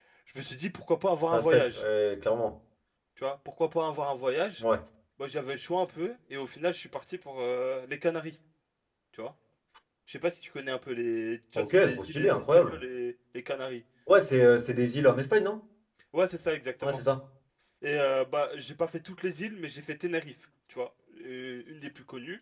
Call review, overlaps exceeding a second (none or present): present